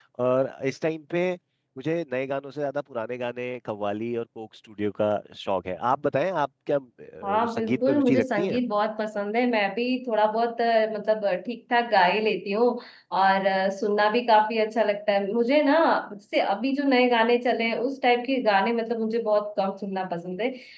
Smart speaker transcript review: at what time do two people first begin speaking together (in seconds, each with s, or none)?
7.2 s